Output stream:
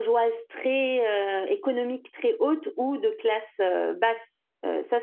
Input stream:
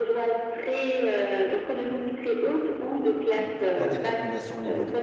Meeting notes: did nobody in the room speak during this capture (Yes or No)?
No